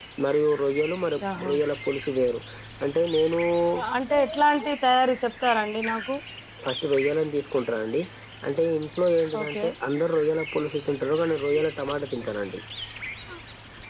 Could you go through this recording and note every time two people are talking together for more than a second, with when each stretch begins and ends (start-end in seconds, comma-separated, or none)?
none